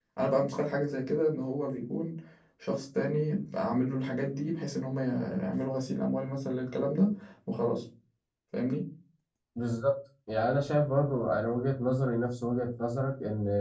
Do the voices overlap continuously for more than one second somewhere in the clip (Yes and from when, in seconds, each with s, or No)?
No